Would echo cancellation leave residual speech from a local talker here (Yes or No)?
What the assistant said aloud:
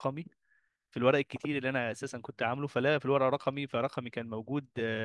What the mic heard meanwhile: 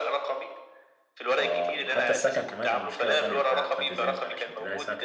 Yes